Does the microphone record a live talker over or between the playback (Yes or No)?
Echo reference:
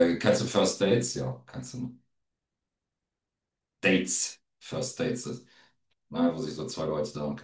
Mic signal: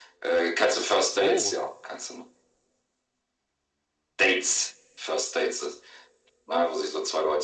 Yes